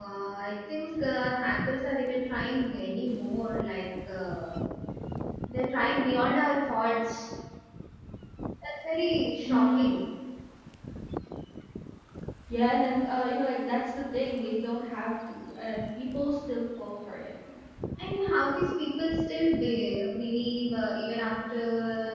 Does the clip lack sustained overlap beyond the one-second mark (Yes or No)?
Yes